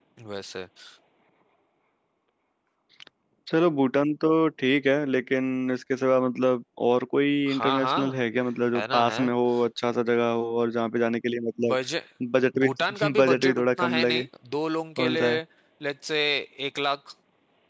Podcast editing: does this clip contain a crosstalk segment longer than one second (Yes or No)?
Yes